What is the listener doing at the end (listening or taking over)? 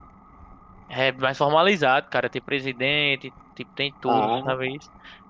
listening